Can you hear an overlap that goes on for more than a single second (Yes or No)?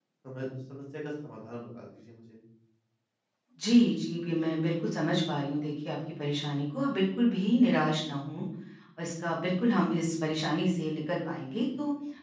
No